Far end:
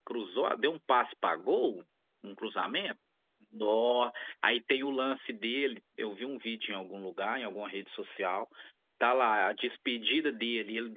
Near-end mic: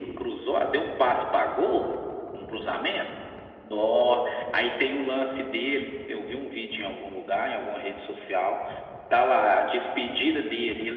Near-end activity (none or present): none